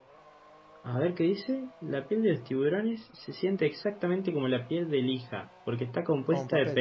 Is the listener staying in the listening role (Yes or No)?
Yes